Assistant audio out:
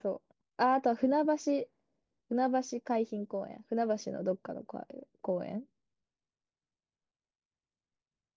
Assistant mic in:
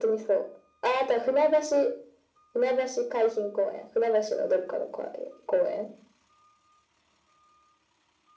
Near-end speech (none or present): none